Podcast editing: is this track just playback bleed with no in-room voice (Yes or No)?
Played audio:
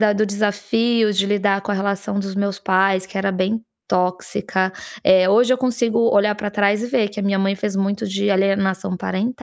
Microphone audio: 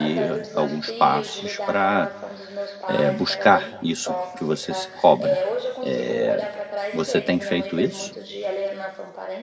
No